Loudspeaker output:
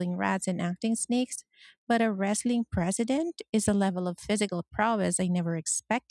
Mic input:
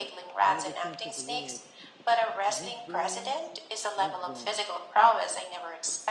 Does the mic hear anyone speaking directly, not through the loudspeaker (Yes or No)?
Yes